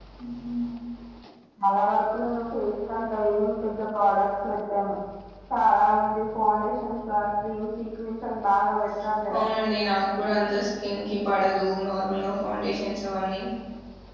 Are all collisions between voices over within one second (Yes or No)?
Yes